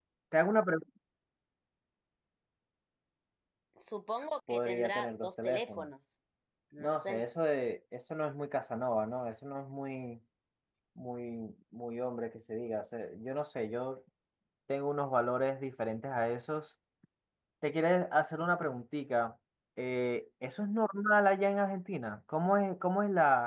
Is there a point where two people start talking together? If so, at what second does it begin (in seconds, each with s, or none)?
4.5 s